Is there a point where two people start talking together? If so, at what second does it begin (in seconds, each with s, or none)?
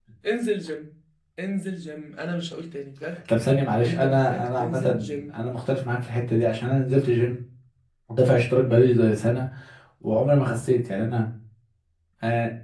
3.9 s